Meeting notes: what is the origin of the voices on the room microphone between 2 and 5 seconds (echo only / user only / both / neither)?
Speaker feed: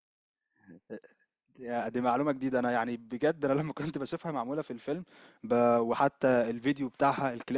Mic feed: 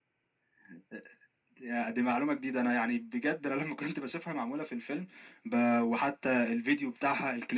echo only